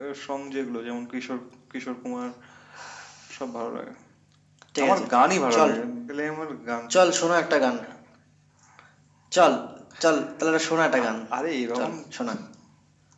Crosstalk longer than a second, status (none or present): none